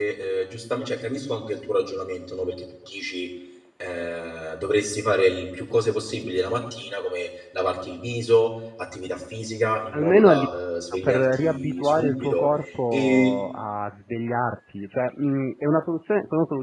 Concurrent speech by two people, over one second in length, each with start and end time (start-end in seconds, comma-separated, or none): 11.0-12.5